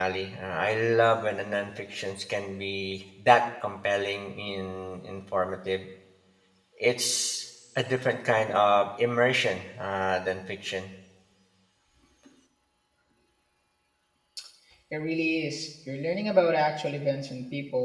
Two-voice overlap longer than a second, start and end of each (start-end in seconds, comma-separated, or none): none